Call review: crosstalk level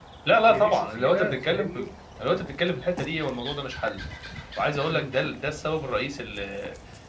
present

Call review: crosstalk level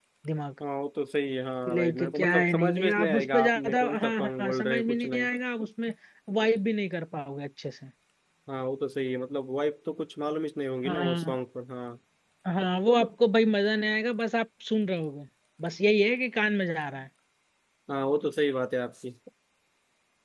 present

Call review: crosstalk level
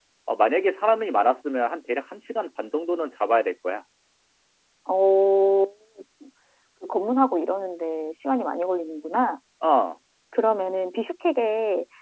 none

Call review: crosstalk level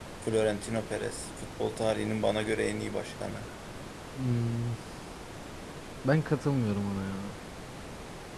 none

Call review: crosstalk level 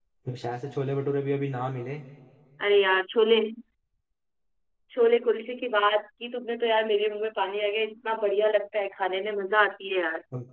none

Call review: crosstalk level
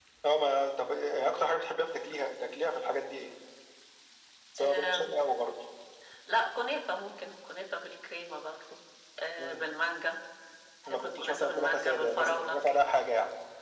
present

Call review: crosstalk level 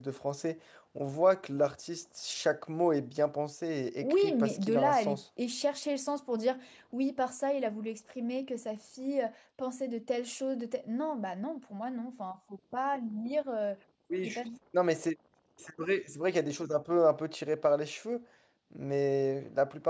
present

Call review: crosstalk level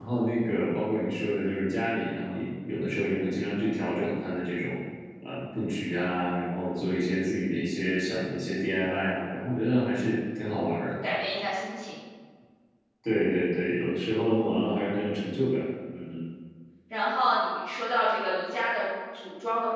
none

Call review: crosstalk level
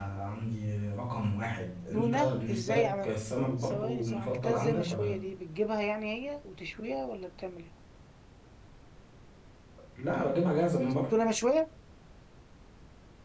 present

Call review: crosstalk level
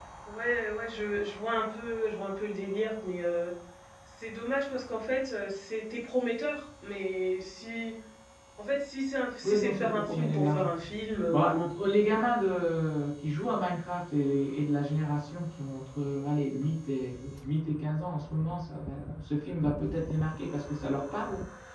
present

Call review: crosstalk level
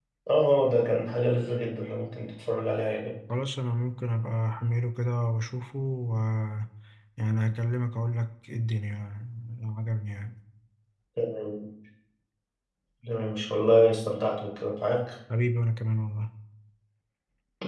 none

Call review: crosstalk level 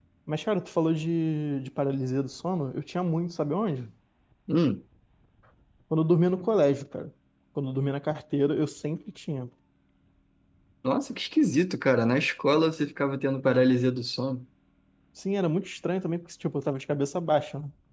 none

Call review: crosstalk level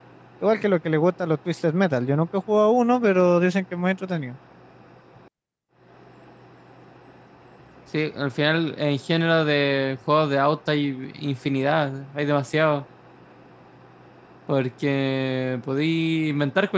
none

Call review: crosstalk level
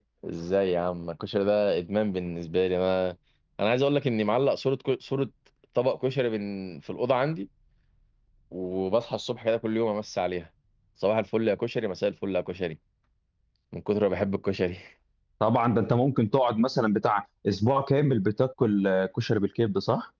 none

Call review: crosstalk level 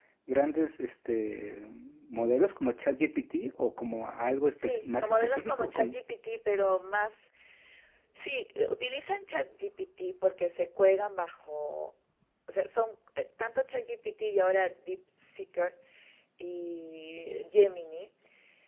present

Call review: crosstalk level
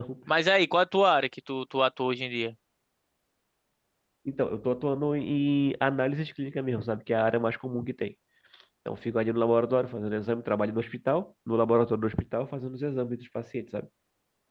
none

